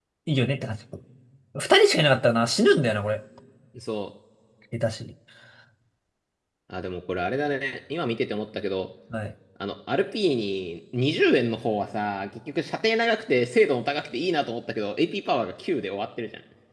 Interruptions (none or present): none